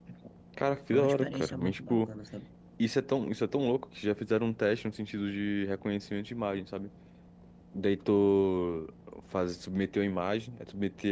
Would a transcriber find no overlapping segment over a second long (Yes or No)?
No